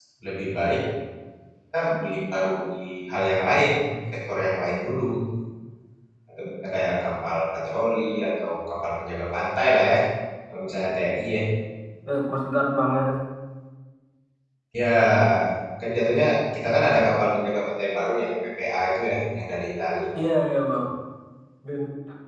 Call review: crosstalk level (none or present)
none